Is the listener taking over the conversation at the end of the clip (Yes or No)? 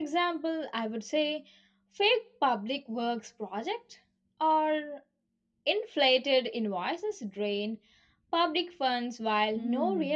Yes